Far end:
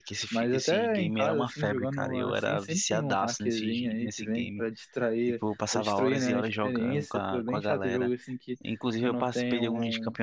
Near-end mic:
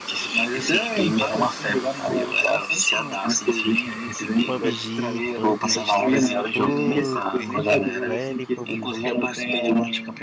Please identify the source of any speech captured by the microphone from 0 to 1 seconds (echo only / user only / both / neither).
echo only